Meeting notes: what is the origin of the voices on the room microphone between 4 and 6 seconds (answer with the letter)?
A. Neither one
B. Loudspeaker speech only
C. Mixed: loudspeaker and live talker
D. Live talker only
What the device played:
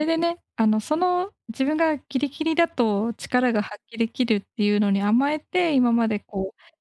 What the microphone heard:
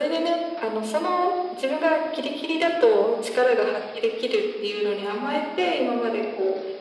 B